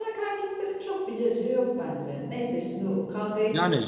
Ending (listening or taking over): taking over